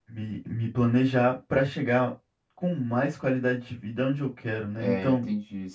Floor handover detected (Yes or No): Yes